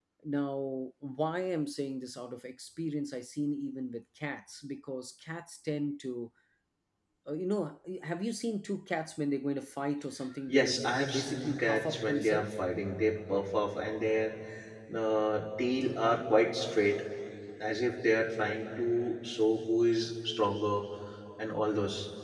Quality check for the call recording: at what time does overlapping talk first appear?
10.5 s

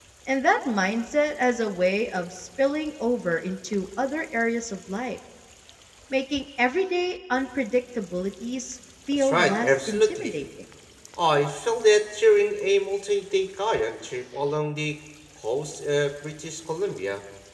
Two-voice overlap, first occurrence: 9.1 s

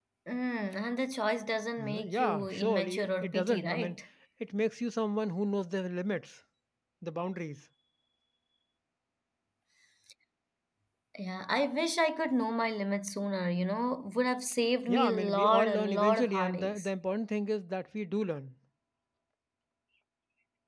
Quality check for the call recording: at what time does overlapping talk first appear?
1.8 s

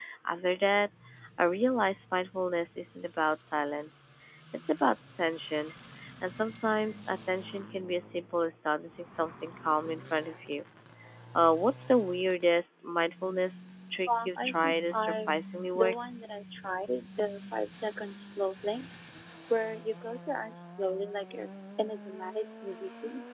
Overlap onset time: 14.1 s

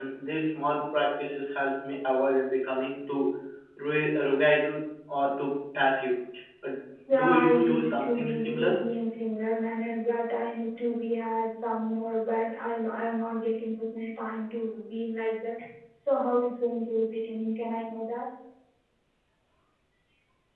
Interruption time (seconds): 7.2 s

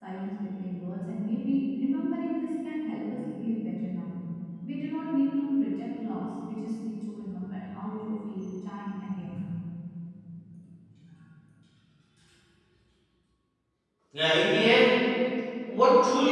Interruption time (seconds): none

